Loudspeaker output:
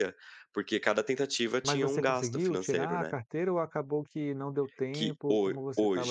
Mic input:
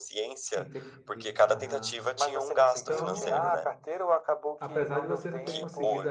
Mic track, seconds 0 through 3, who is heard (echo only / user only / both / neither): both